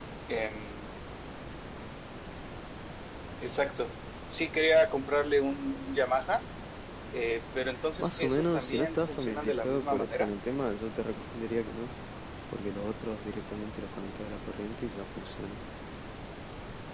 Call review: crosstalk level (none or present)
present